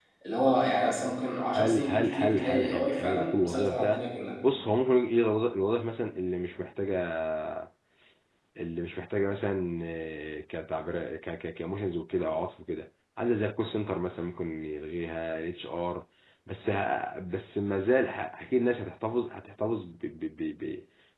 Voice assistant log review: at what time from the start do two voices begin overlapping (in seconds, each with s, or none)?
1.6 s